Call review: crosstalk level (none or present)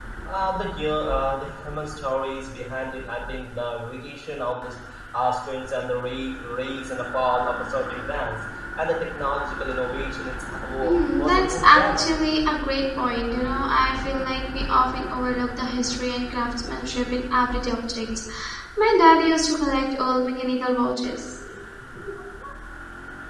present